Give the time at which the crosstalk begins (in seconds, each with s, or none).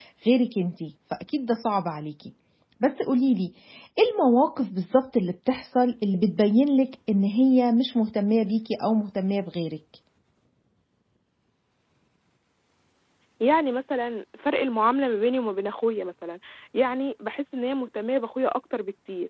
none